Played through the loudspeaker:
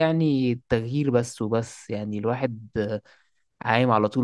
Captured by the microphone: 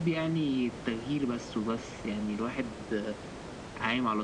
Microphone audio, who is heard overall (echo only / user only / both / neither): echo only